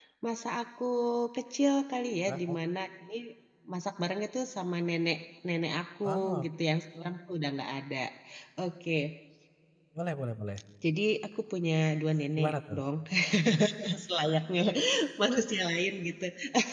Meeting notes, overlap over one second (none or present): none